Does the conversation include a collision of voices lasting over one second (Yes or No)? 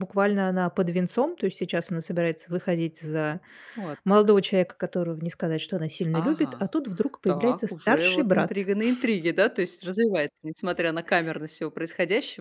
Yes